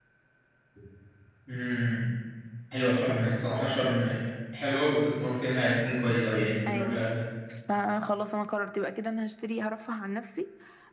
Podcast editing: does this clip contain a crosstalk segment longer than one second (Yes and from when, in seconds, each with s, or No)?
No